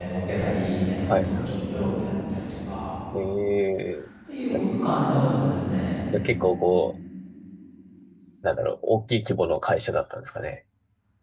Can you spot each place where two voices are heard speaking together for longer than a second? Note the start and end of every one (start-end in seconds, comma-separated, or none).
none